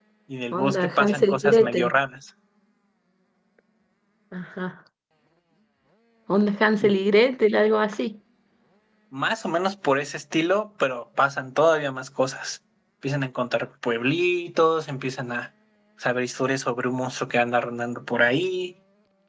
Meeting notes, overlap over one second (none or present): present